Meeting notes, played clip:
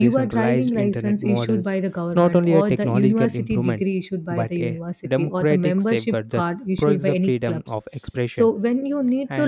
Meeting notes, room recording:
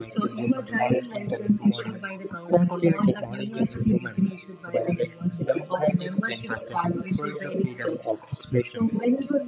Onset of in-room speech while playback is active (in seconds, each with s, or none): none